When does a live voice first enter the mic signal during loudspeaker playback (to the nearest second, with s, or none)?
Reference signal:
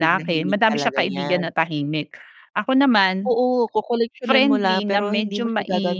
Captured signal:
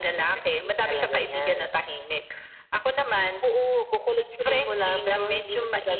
none